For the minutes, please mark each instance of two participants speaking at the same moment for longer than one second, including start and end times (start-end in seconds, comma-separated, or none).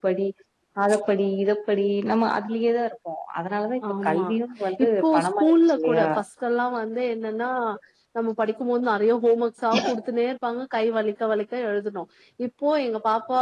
4.8-6.1